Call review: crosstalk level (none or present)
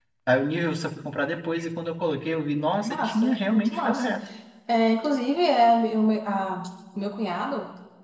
present